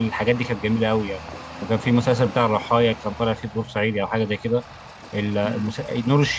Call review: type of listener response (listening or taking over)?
listening